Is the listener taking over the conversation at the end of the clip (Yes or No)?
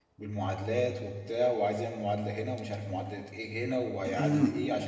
Yes